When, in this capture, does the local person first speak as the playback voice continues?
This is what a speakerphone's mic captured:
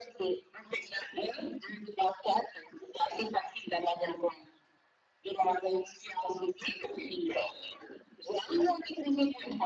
none

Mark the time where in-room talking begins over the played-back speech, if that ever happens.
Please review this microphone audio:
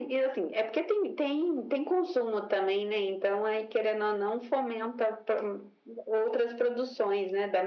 none

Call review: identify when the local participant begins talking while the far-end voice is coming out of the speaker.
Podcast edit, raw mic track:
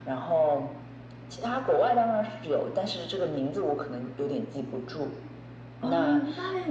5.8 s

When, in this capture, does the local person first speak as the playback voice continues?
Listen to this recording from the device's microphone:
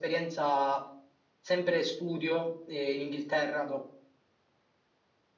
none

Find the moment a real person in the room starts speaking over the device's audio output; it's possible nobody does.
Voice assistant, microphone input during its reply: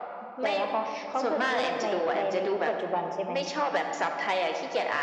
none

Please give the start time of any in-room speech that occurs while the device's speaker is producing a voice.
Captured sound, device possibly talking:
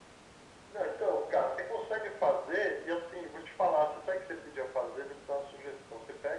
none

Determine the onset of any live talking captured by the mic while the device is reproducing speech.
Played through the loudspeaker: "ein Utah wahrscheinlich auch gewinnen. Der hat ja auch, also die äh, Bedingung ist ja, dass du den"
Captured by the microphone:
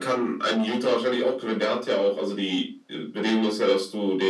none

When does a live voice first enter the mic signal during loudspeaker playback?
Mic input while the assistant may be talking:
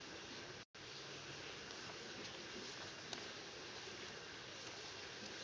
none

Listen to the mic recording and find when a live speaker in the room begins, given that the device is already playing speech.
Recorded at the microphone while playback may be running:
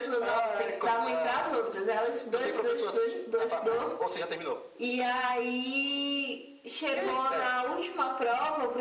none

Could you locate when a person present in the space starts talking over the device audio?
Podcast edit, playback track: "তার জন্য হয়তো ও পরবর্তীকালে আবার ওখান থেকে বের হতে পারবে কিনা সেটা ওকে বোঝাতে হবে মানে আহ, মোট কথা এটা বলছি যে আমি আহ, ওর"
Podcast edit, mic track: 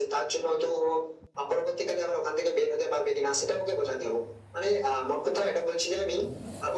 none

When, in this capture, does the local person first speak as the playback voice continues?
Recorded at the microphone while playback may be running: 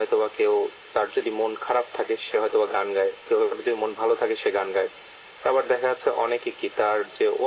none

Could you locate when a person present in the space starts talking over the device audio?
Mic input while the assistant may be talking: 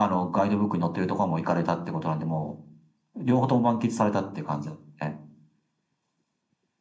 none

